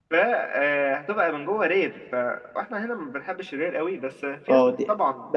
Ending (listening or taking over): taking over